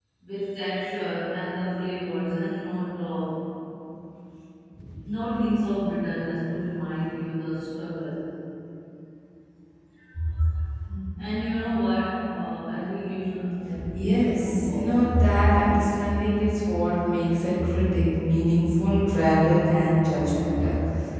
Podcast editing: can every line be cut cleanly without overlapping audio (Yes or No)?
No